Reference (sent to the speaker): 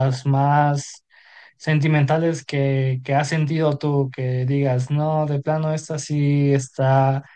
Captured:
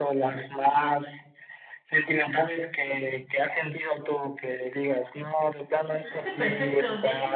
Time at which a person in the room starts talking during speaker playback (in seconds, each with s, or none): 5.9 s